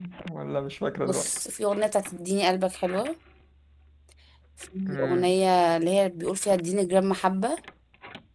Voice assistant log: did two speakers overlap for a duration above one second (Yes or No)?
No